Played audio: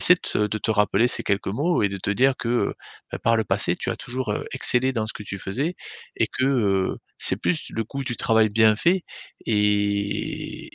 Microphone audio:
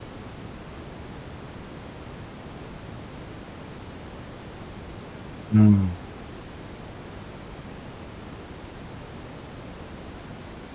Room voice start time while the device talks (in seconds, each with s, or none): 5.5 s